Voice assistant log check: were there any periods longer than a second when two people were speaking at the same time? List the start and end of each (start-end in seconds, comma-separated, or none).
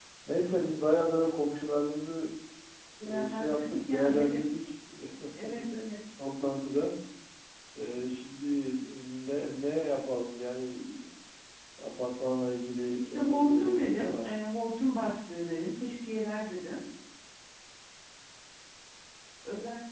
3.2-4.4, 13.0-14.3